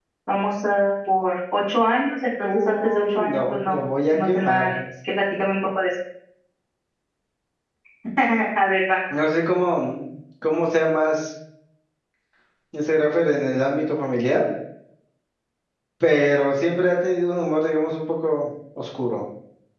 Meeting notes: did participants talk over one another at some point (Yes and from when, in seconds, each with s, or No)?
Yes, from 2.4 s